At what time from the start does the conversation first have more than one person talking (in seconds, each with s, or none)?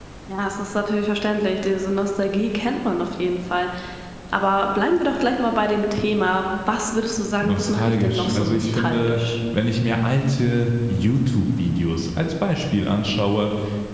7.4 s